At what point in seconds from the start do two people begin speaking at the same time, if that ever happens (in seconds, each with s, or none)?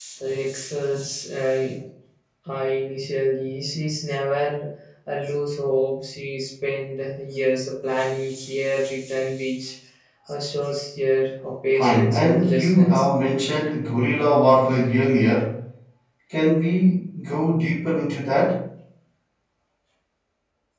11.8 s